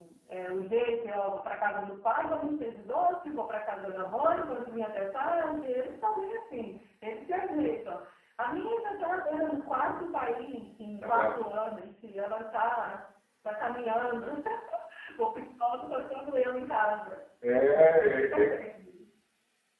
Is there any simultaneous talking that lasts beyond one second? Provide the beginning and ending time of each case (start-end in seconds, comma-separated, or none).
none